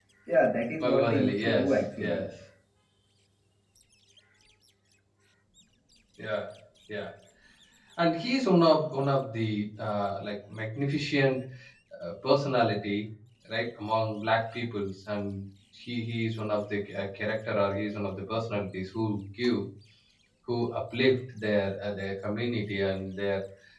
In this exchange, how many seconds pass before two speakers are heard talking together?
0.8 s

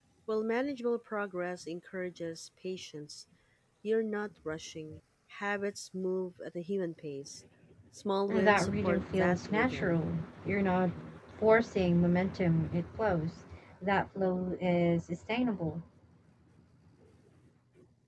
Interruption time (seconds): 8.3 s

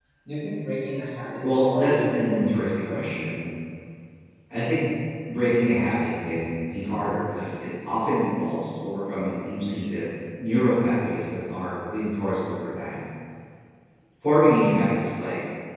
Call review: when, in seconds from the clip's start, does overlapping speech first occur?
1.4 s

